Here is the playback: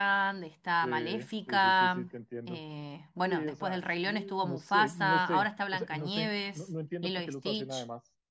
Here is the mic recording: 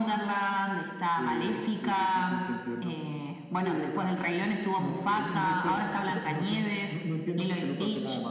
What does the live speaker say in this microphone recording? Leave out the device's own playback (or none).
none